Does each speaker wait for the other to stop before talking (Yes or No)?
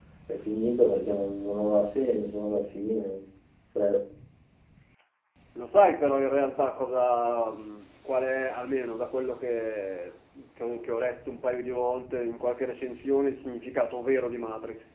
Yes